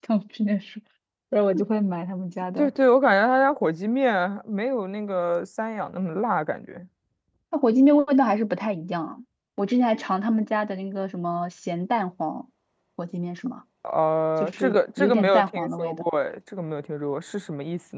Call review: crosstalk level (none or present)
present